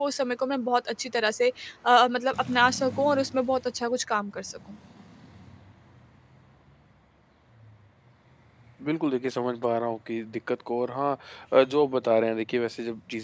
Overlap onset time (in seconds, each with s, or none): none